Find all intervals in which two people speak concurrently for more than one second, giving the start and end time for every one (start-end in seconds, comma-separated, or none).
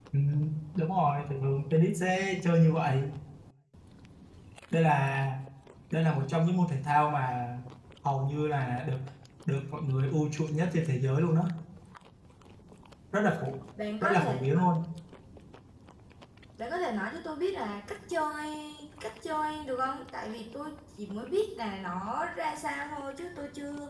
none